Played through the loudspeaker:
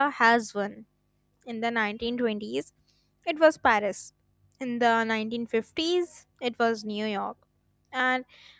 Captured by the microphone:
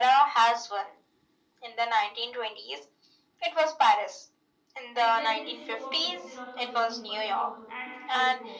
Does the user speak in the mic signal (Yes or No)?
Yes